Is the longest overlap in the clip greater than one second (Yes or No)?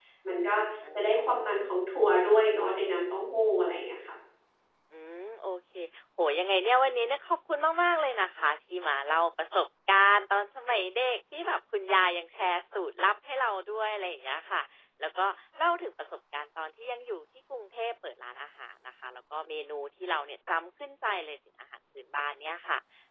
No